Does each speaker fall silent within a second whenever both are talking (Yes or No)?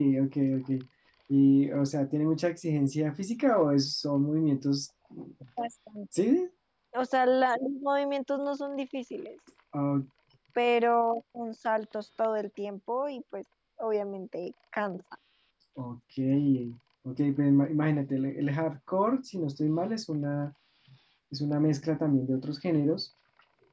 Yes